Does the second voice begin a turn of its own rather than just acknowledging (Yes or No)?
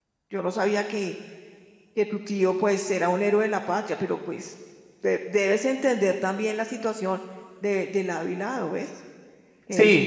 Yes